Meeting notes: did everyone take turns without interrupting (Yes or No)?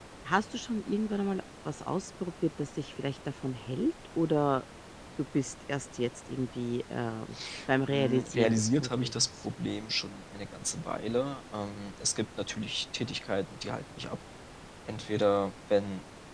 No